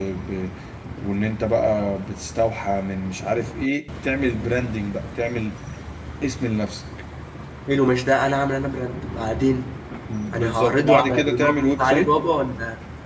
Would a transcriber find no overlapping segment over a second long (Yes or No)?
No